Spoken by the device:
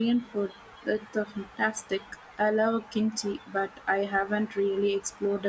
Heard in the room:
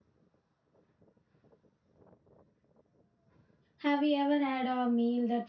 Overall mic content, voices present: user only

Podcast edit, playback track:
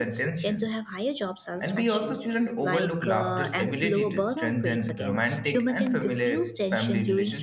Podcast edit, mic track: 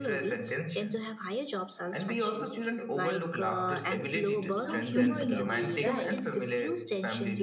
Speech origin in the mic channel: both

